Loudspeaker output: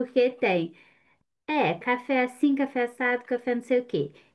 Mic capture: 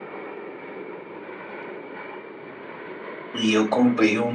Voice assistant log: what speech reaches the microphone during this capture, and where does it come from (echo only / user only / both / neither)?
user only